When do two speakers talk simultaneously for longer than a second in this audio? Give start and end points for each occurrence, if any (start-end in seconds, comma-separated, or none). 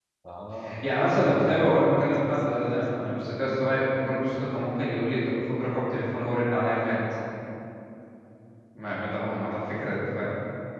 1.2-3.5